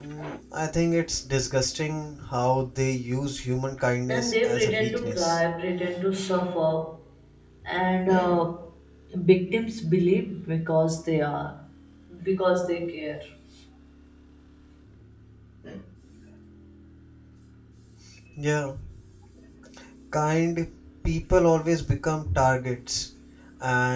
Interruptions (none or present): present